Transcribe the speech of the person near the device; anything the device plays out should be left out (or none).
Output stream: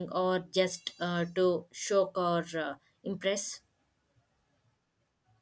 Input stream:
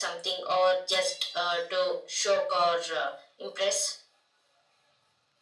none